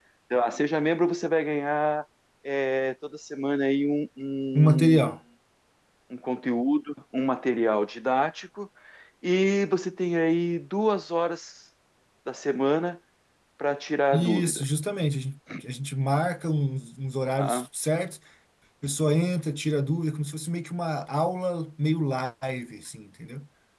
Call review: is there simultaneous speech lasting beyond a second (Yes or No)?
No